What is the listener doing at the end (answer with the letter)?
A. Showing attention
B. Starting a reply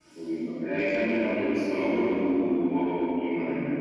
B